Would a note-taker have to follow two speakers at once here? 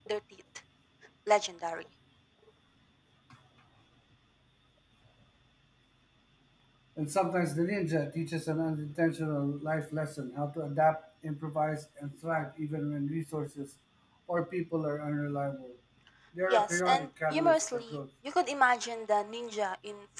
Yes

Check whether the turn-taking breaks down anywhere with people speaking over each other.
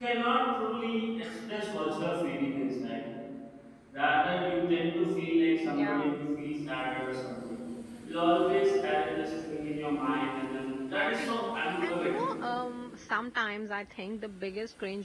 Yes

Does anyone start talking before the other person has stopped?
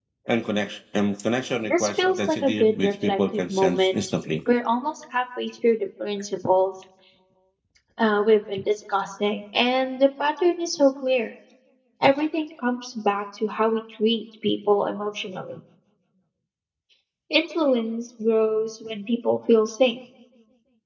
Yes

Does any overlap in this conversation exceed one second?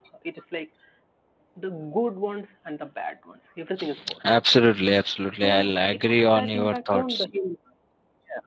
Yes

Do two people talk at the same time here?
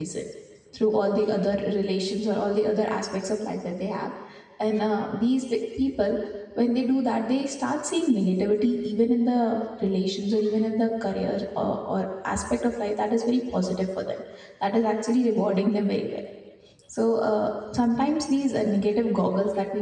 No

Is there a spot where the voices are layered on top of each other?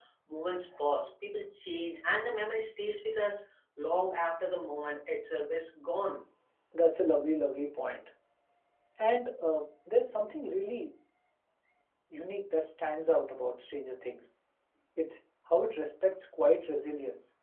No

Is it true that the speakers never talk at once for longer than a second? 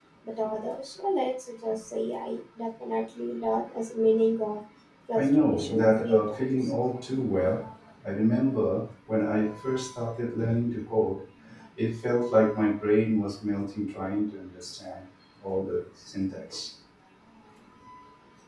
No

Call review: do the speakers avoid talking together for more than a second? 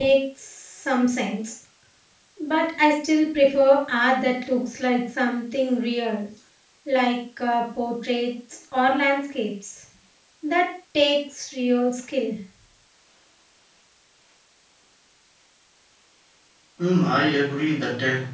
Yes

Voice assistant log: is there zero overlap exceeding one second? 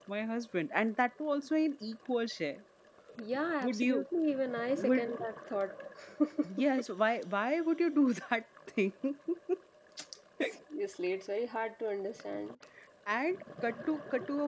Yes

